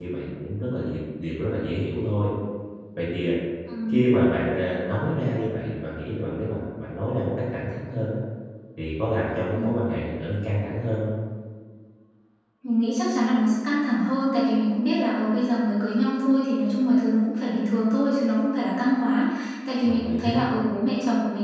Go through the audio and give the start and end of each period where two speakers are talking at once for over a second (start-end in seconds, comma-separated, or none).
none